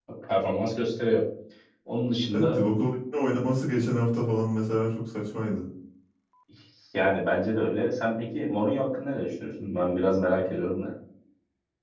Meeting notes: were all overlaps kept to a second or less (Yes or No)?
Yes